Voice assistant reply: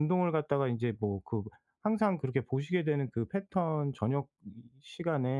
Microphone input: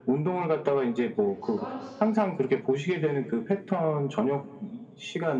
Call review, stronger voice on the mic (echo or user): echo